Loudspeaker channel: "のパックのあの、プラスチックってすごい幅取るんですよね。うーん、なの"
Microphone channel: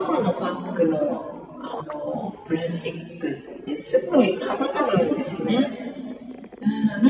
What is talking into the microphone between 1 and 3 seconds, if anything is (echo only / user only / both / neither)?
echo only